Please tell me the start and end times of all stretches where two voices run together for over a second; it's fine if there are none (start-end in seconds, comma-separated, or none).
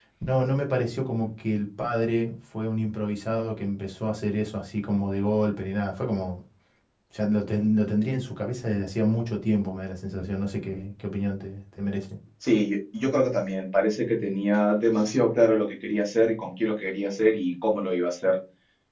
none